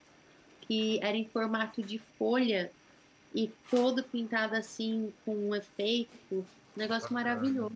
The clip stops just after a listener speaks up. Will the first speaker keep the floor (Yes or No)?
No